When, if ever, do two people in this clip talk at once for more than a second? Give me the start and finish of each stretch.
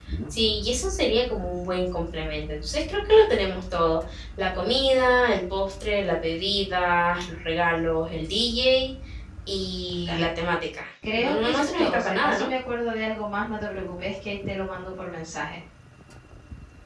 11.2-12.5

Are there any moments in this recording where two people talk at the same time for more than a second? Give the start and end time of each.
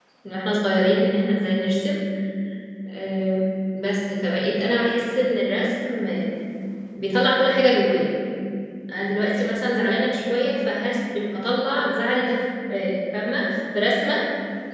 none

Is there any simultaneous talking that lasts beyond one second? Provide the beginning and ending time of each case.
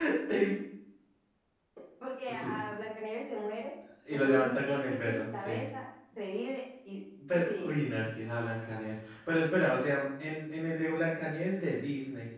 4.2-5.6

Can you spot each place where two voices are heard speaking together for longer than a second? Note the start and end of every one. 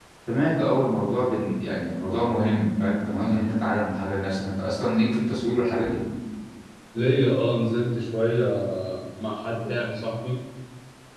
none

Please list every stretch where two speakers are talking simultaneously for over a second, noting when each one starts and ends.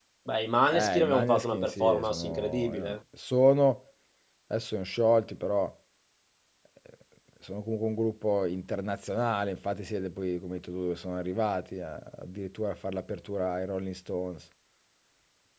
0.7-3.0

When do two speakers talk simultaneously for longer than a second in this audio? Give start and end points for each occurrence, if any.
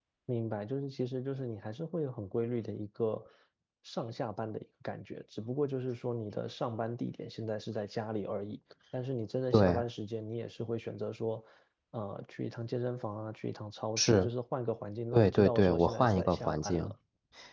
15.1-16.9

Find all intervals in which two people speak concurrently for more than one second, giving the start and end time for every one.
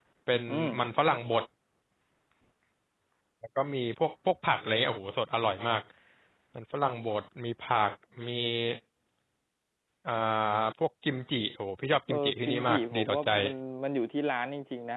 12.1-13.3

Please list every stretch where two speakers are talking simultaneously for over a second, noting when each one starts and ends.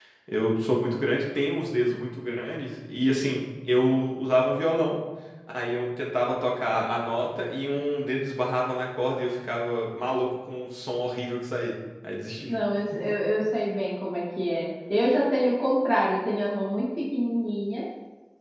none

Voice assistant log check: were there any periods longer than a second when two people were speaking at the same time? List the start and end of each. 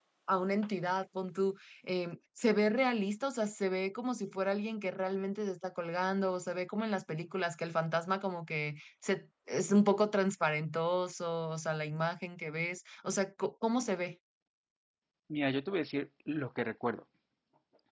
none

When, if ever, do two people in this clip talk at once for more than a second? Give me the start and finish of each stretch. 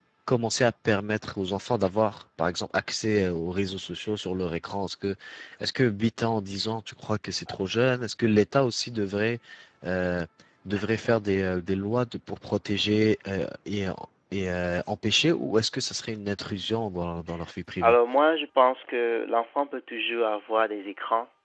none

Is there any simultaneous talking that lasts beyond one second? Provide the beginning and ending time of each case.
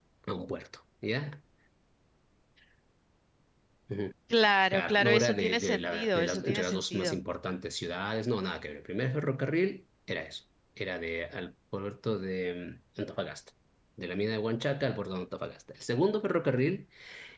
4.7-7.2

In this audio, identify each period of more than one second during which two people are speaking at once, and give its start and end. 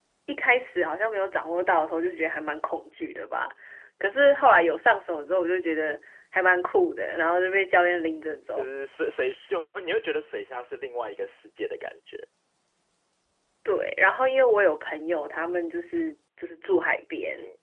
none

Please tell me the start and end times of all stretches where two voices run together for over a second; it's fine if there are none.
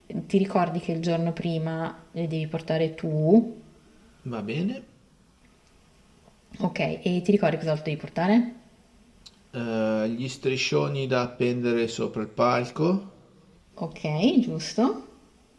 none

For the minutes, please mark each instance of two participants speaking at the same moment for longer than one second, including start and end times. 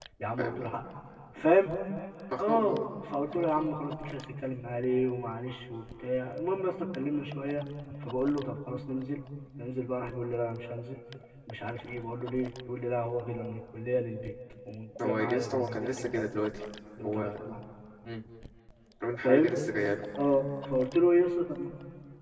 15.0-16.3

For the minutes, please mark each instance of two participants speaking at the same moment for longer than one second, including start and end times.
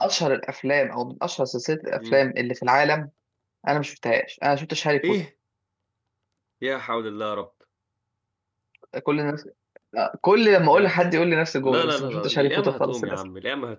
11.6-13.2

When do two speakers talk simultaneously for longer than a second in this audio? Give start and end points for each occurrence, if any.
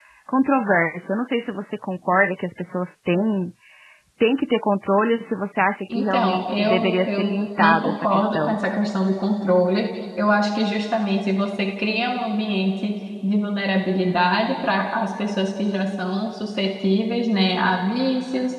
5.9-8.6

